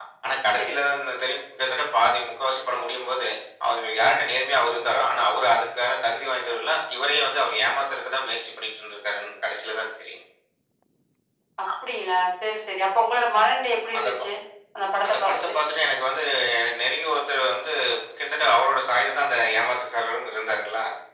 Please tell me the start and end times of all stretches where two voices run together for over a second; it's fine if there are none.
none

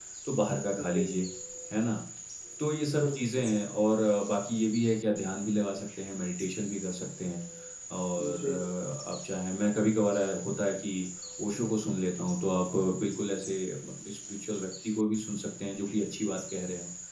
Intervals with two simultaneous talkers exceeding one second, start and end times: none

